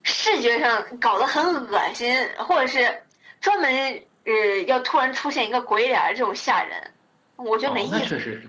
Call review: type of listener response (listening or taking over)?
taking over